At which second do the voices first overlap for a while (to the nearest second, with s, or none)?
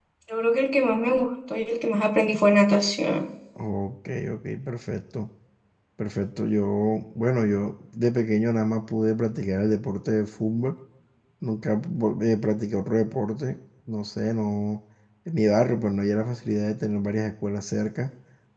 none